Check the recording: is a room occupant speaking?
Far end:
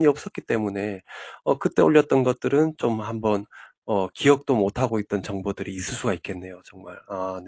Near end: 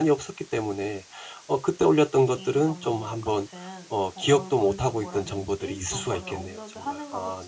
Yes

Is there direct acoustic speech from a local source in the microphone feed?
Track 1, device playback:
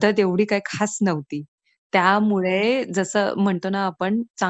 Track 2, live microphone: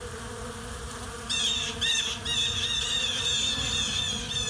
No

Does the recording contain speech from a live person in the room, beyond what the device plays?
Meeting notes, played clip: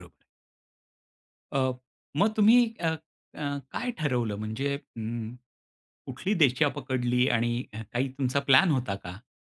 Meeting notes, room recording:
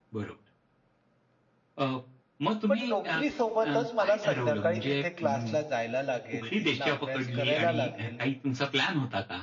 Yes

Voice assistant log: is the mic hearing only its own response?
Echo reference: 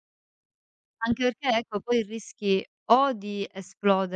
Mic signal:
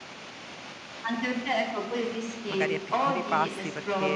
No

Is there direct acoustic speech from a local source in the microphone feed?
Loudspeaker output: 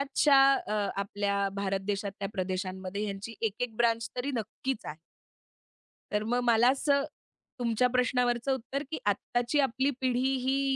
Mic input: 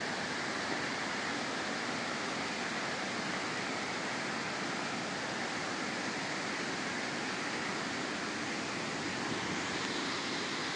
No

